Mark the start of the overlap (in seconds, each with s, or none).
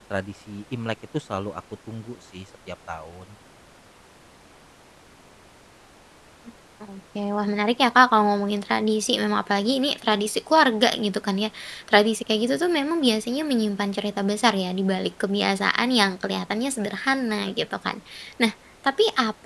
none